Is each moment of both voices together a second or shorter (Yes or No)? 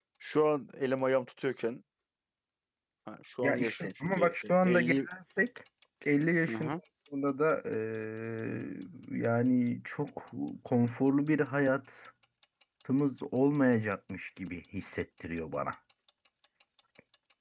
No